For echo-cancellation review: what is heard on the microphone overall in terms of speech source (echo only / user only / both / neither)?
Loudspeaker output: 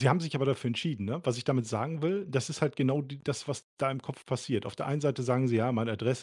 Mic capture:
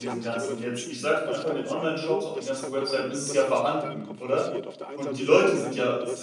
both